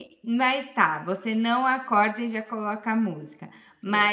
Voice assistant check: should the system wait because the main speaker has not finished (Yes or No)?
Yes